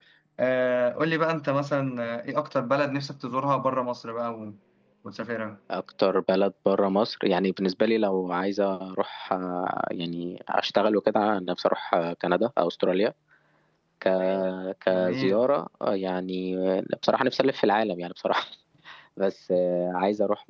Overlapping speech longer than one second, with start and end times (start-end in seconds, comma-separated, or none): none